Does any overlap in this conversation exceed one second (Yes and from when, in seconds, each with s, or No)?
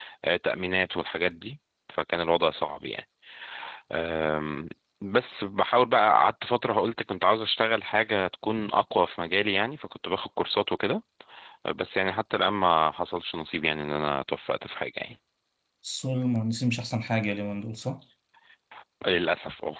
No